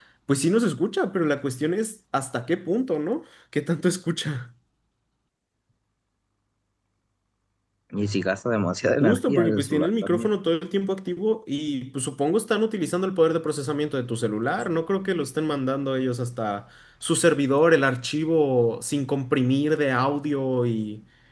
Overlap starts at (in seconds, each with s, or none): 9.0 s